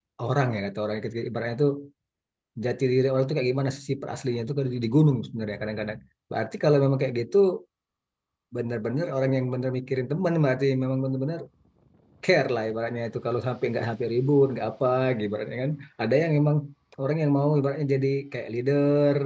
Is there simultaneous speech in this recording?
No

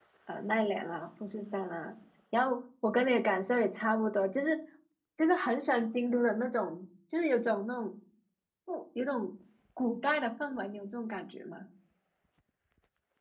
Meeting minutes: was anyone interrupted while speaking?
No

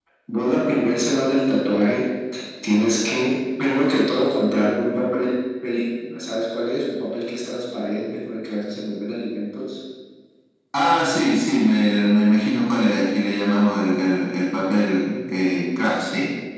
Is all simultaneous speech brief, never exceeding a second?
Yes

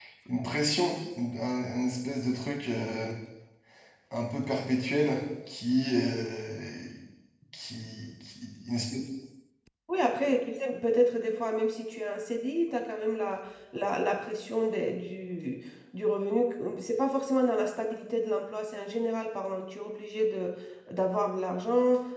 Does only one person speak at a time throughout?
Yes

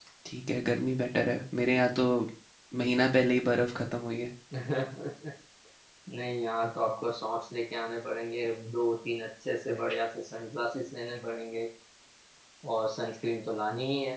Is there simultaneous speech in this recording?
No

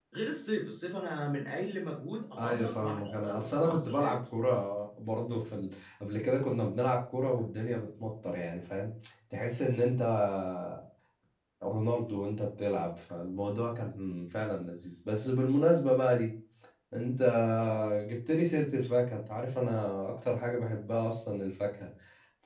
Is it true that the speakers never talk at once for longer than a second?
No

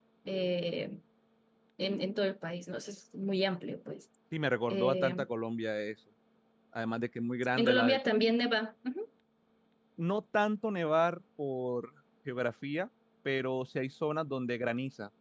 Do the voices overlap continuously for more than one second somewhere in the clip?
No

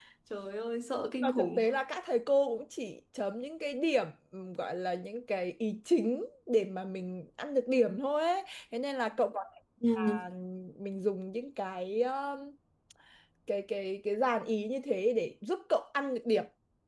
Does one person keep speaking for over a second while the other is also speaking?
No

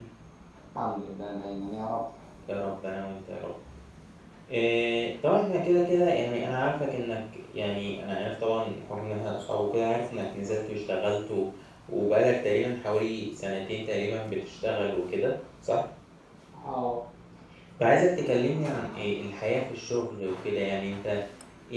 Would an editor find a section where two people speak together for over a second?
No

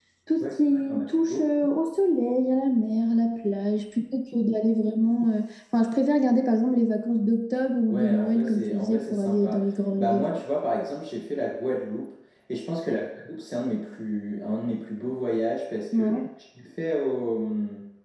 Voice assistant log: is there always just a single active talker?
No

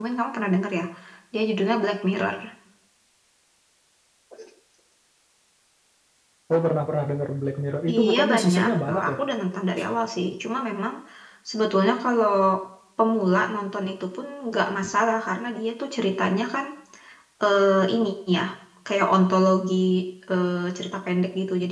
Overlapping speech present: Yes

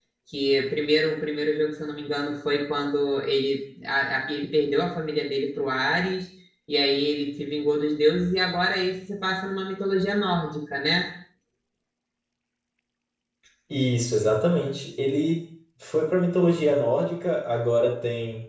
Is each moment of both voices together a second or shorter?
Yes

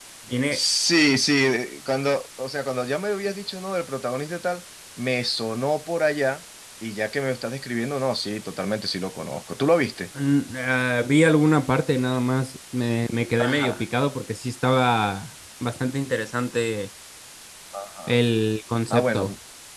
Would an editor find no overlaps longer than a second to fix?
Yes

